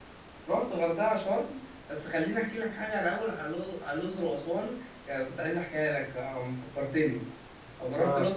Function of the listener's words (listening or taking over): listening